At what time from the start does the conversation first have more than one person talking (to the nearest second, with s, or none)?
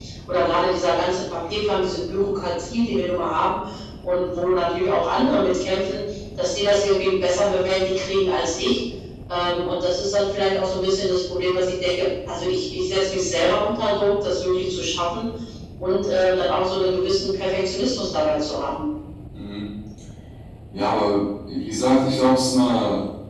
none